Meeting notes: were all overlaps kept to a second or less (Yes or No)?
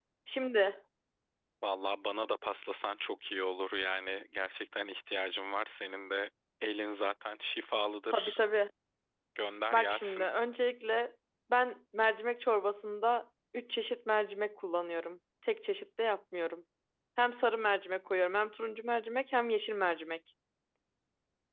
Yes